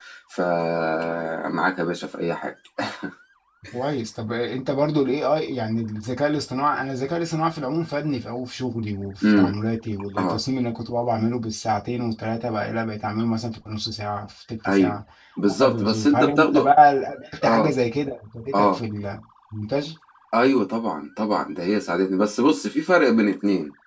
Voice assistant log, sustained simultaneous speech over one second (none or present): present